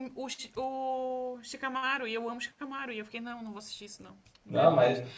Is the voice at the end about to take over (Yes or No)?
No